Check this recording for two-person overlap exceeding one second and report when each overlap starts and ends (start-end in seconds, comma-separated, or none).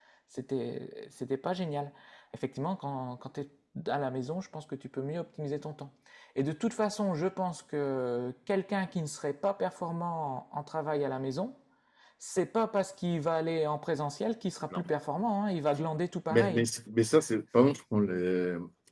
none